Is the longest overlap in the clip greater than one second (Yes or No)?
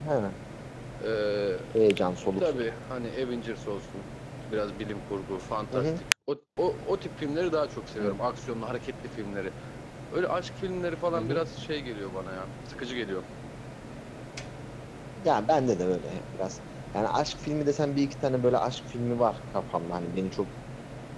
No